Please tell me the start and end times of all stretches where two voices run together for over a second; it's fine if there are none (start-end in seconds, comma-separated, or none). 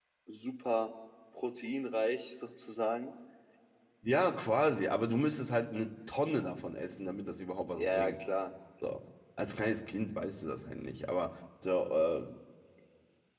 none